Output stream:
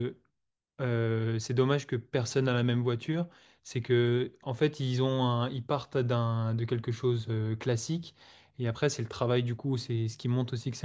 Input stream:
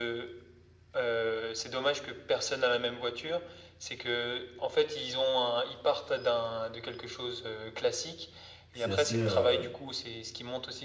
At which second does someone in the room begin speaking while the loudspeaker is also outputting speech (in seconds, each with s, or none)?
8.8 s